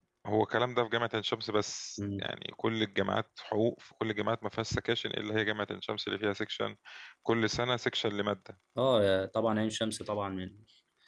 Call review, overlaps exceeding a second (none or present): none